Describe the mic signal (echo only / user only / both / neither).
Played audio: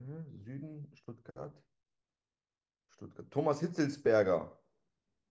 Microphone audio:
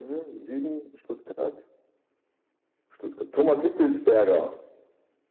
echo only